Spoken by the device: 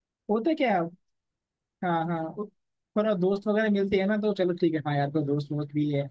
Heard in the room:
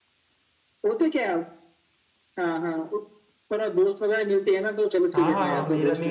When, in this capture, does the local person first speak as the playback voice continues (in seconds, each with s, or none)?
5.1 s